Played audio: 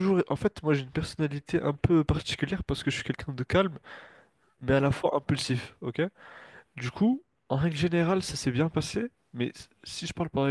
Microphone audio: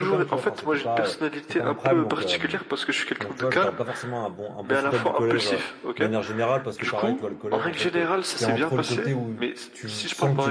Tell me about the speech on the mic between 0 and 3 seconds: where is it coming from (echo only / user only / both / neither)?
both